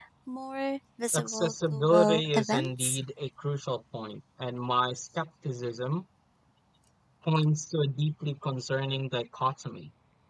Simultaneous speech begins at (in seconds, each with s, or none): 1.1 s